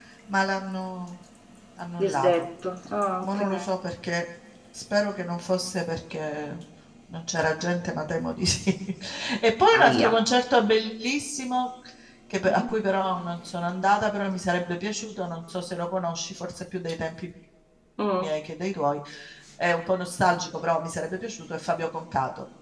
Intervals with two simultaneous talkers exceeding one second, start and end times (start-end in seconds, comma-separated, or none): none